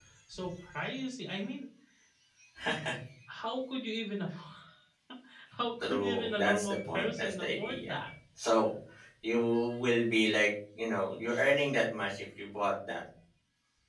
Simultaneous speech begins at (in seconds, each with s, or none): 5.8 s